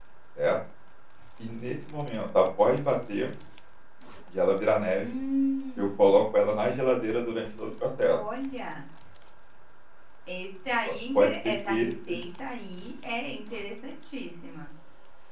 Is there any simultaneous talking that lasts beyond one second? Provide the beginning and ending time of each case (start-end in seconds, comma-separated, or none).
10.8-12.2